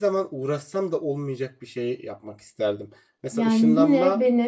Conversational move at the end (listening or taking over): taking over